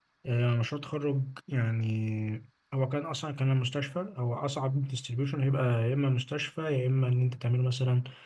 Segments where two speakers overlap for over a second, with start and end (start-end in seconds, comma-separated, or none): none